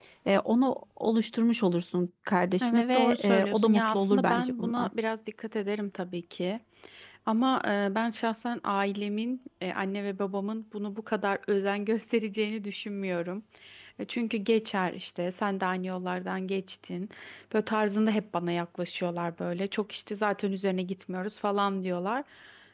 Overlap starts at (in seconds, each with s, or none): 2.6 s